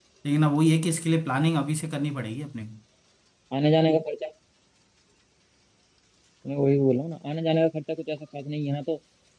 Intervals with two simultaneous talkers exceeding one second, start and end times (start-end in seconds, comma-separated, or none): none